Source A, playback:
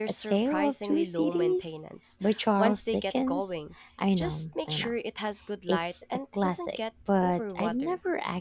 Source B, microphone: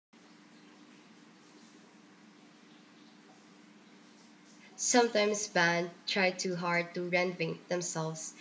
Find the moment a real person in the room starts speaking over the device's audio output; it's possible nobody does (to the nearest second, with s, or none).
5 s